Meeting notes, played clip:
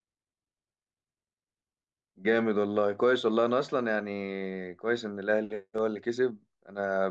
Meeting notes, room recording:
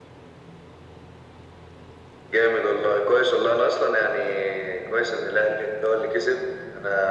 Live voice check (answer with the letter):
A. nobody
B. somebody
A